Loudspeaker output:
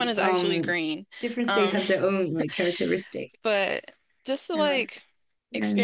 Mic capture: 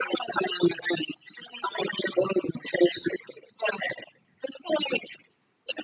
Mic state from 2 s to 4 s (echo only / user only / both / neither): echo only